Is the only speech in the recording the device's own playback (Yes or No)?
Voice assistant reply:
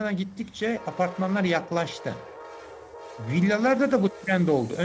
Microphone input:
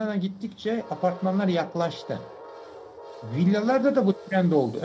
Yes